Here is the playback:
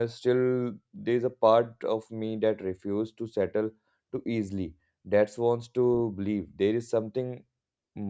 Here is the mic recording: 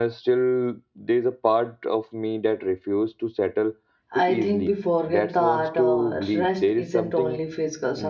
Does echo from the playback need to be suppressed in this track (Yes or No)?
Yes